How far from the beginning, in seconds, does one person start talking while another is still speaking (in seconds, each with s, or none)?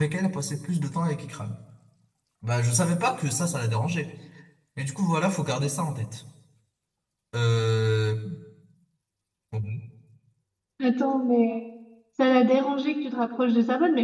none